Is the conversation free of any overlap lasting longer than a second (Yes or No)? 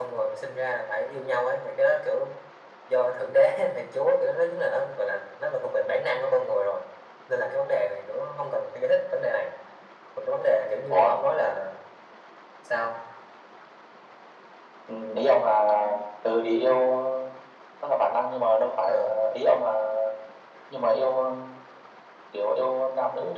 Yes